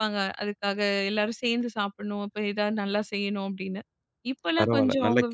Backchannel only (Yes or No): No